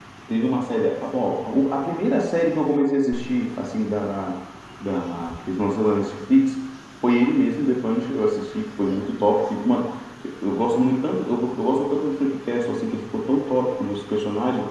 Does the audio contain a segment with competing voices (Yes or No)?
No